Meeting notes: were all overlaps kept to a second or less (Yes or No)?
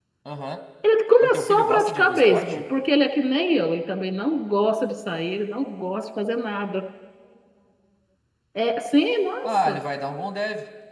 No